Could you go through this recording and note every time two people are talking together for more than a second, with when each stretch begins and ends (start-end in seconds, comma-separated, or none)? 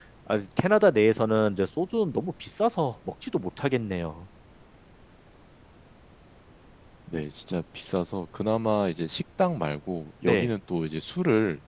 none